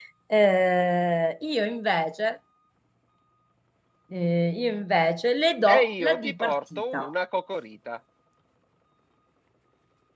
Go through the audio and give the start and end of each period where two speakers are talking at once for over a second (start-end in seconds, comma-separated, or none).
5.7-7.1